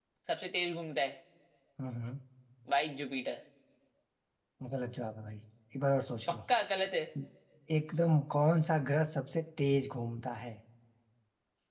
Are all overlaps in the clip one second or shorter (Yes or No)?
Yes